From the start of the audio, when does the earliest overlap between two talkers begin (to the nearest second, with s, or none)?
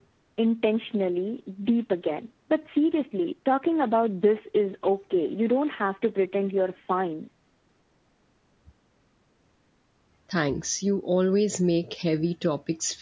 none